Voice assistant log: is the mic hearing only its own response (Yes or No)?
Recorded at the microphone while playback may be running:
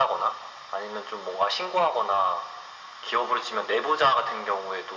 Yes